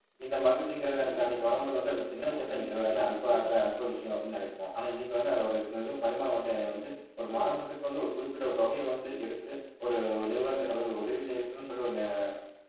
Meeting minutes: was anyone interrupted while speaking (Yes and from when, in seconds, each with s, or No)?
Yes, from 1.0 s